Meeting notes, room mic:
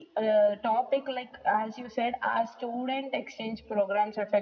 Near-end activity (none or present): none